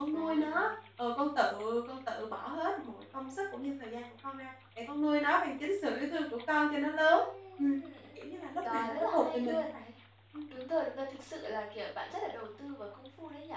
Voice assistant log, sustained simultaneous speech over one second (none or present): present